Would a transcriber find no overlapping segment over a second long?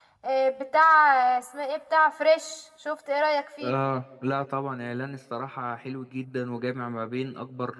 Yes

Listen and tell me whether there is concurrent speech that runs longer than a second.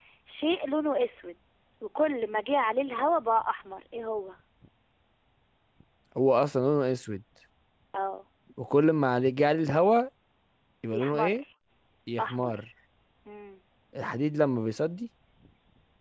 No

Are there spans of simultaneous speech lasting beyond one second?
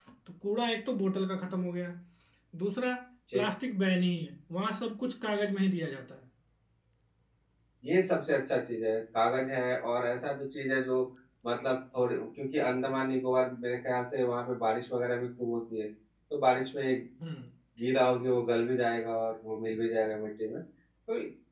No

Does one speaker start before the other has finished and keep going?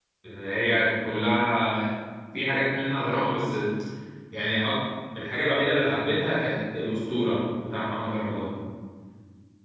No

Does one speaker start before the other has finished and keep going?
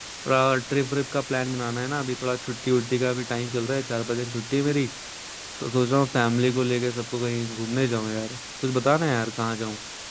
No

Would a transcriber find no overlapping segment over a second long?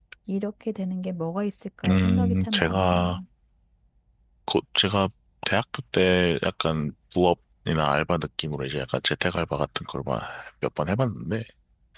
No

